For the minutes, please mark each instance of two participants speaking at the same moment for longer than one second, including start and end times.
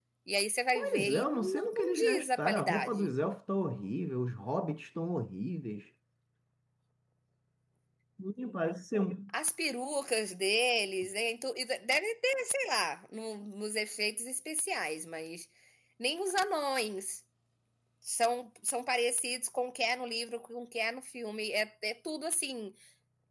0.8-3.2

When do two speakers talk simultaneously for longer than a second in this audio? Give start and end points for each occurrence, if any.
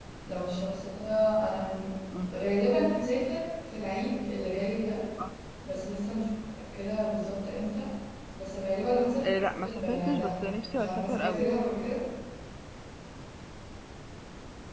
9.2-11.5

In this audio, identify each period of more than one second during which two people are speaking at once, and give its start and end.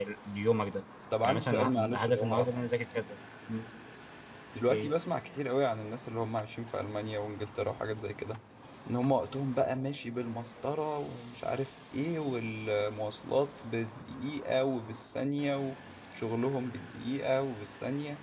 1.2-2.6

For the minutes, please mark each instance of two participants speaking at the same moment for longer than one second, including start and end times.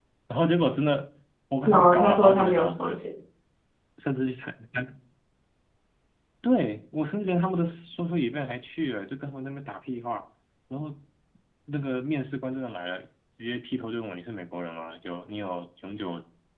1.6-3.0

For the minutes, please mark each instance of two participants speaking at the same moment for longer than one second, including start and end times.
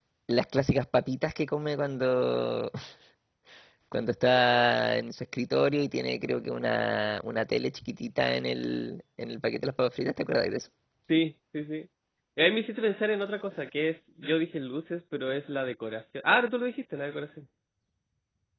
none

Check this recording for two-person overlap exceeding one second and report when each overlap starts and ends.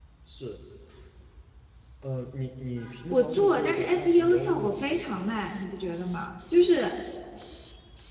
3.1-5.2

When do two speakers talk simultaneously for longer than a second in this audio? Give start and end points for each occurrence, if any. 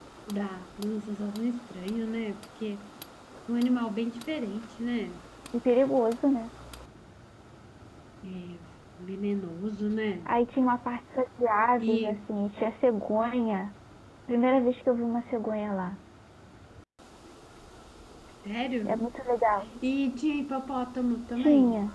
none

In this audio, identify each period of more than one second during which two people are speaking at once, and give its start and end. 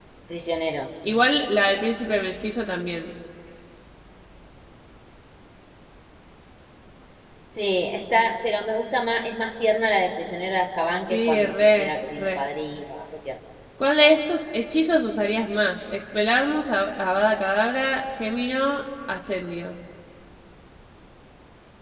11.1-12.4

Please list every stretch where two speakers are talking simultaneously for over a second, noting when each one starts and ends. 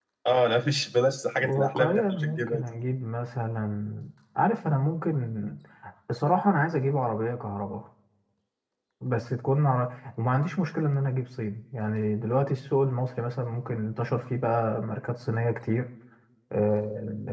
1.4-2.7

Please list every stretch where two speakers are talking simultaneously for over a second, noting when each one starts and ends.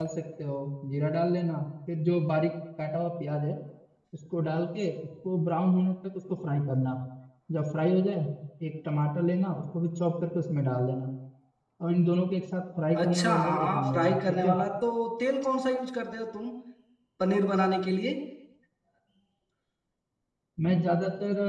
13.0-14.5

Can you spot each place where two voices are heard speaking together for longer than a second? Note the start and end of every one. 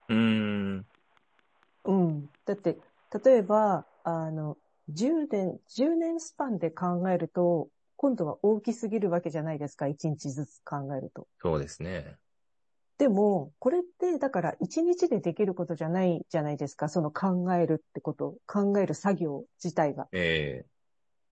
none

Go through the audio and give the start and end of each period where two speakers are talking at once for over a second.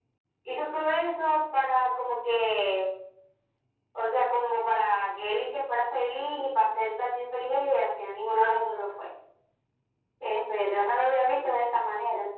none

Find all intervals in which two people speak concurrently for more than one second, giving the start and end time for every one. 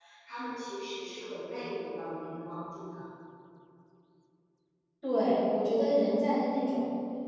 none

